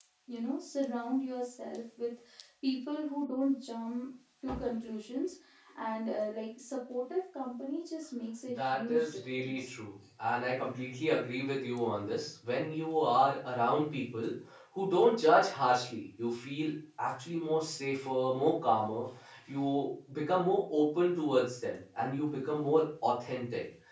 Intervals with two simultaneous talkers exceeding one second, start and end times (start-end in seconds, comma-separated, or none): 8.5-9.7